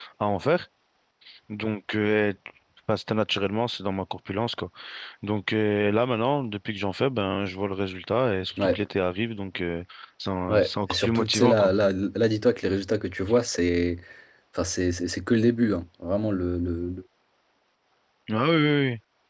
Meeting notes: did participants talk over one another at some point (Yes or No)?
Yes